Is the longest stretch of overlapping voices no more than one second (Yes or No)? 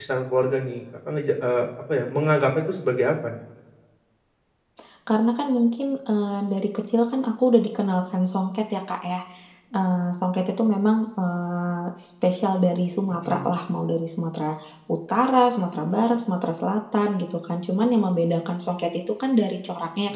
Yes